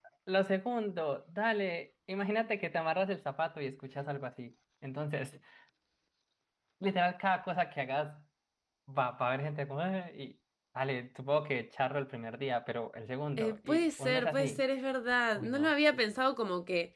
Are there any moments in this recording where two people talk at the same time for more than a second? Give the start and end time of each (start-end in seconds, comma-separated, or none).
13.4-14.6